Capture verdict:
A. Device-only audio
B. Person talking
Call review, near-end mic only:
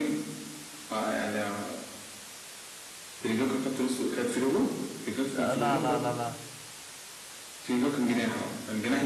B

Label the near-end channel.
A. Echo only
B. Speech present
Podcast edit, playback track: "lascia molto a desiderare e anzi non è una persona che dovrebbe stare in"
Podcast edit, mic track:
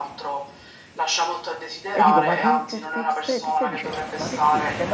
B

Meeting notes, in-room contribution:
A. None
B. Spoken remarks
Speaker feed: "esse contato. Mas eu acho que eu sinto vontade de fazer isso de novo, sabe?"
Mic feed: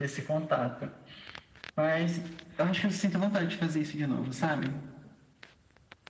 A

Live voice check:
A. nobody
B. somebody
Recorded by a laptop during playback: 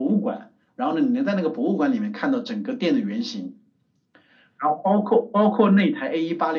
A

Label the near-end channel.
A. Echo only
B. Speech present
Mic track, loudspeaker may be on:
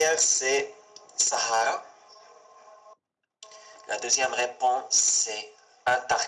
A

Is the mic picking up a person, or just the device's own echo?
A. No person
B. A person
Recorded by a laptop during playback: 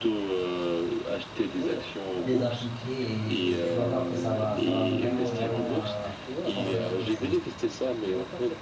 B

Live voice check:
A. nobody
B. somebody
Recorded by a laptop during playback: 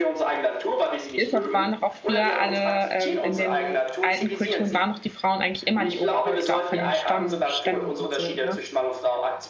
B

